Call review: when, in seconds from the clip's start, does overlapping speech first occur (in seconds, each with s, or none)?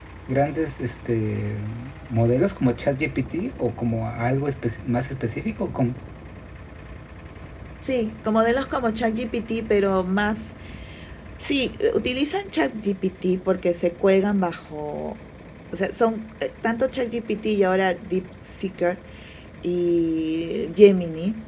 none